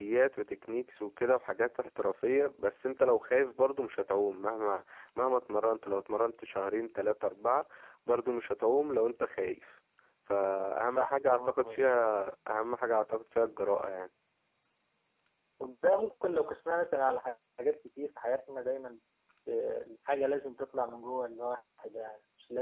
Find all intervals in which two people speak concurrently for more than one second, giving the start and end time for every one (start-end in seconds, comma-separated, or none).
10.9-12.1